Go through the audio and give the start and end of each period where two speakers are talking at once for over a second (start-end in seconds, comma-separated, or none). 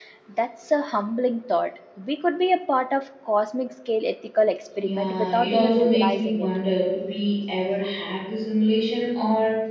4.8-6.5